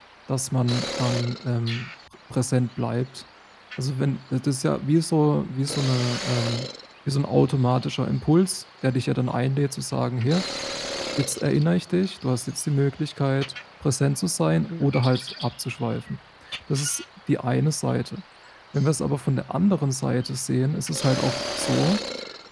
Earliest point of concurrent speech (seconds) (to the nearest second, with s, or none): none